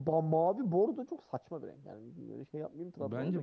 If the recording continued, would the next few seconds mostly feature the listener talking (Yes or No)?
Yes